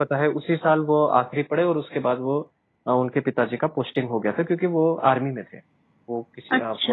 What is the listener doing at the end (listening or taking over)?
listening